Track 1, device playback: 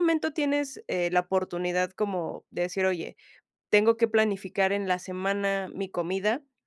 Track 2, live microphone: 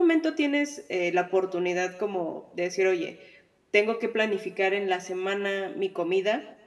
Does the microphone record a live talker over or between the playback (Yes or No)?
No